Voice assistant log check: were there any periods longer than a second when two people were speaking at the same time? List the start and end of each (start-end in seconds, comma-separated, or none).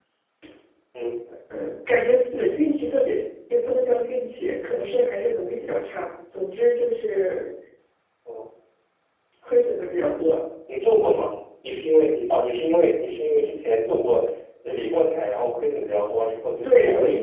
none